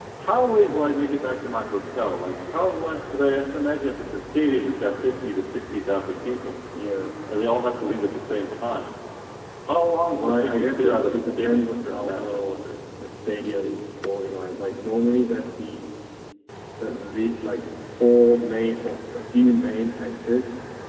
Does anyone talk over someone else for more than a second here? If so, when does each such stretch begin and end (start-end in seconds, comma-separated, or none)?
10.2-12.6